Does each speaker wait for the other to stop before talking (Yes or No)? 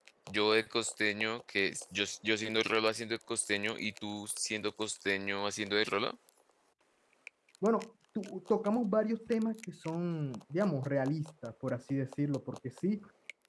Yes